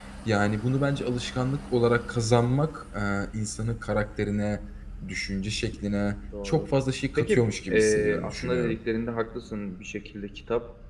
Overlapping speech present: Yes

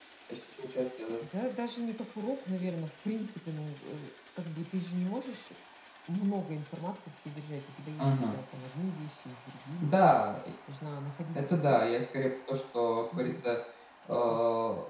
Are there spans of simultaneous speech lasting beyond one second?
No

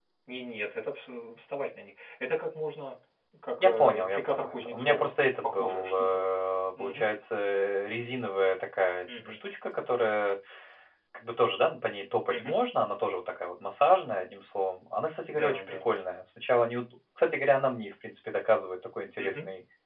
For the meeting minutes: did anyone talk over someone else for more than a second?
Yes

